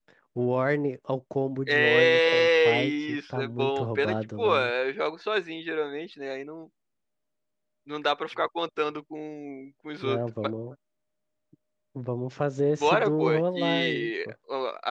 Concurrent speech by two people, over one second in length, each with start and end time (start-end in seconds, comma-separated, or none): 1.7-4.7, 12.8-14.1